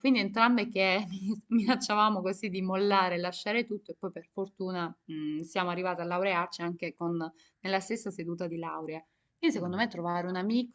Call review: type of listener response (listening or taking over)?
listening